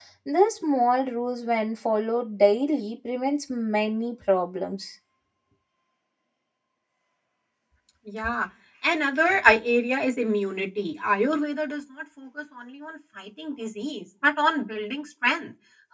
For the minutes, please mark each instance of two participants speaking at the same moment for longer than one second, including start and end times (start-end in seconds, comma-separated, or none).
none